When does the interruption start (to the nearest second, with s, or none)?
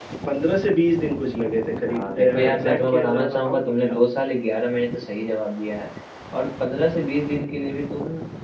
2 s